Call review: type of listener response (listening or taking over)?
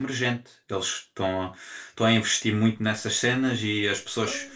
listening